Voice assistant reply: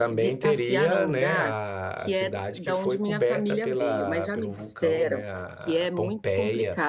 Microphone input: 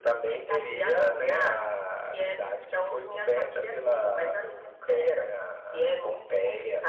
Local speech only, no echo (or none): none